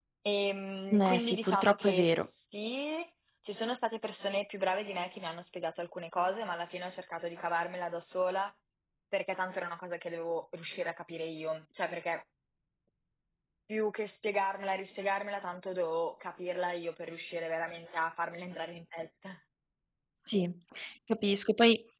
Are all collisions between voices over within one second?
No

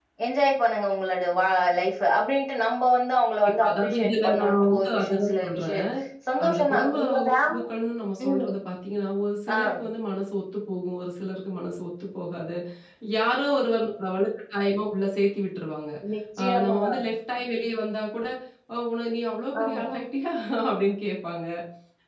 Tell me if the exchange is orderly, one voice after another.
No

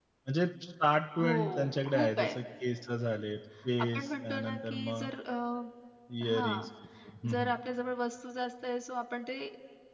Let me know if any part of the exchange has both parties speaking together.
Yes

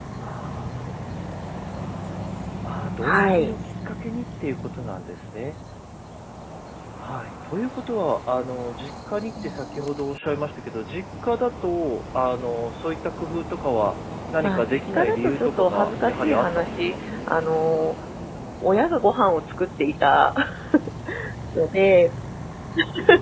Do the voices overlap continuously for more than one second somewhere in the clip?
Yes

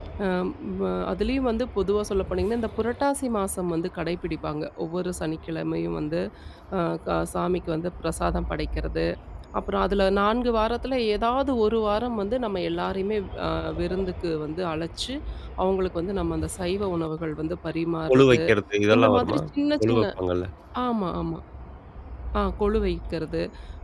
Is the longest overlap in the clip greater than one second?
No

